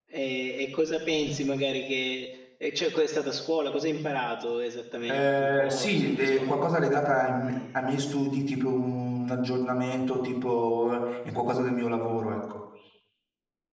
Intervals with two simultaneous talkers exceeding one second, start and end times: 5.1-6.5

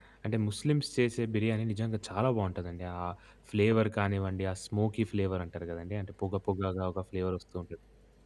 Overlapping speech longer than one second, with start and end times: none

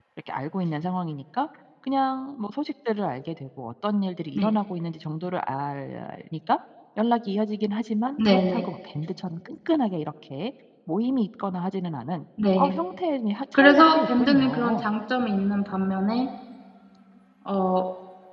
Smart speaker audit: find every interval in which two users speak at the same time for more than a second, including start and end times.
13.5-14.8

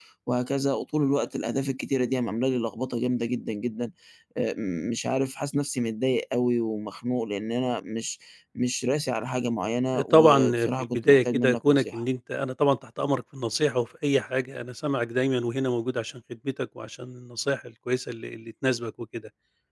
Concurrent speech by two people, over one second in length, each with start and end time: 10.1-12.0

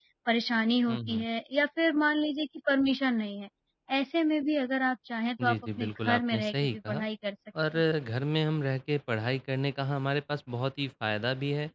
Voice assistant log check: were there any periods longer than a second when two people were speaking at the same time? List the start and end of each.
5.5-7.0

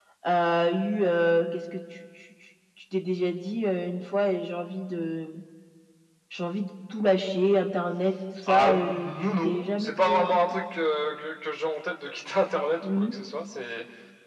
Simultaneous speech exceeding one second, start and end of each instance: 8.5-10.4

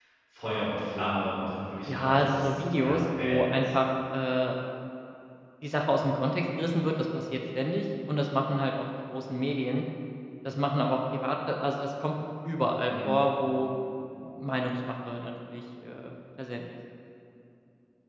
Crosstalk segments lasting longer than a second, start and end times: 1.9-3.7

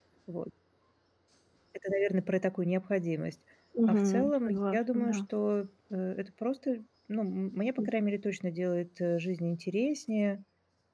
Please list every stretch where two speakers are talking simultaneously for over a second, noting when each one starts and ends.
3.9-5.2

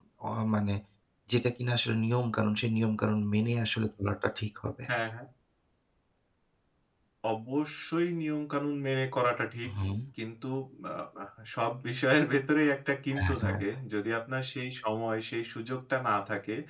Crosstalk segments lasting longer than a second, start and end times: none

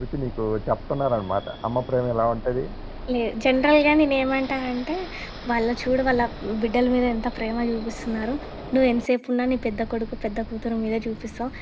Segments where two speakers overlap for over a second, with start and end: none

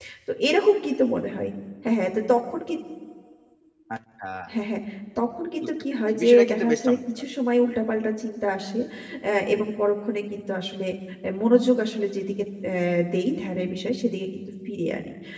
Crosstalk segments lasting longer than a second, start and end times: 5.6-7.0

